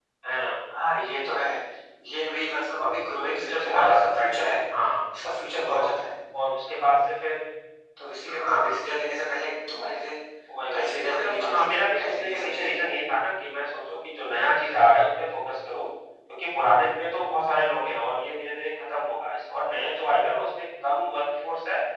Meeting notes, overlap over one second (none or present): present